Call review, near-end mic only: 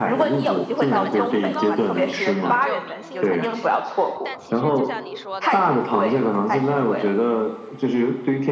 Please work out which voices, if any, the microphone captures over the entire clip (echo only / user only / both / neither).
both